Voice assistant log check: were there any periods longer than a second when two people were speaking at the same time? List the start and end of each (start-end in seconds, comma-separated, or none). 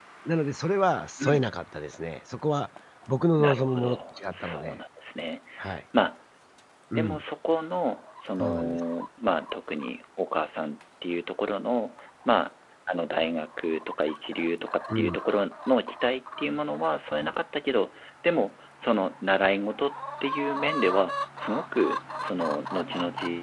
3.4-4.8